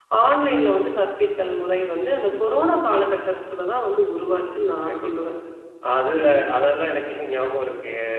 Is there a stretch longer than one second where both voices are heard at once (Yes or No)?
No